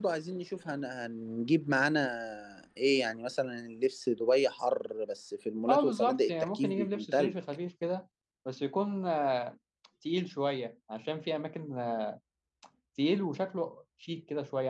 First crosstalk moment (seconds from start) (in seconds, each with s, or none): 5.7 s